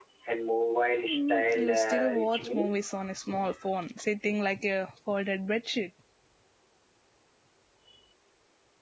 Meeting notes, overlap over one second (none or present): present